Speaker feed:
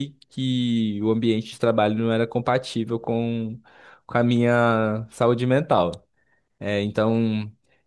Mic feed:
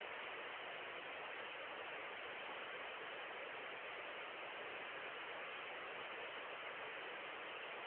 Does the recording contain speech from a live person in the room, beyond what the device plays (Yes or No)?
No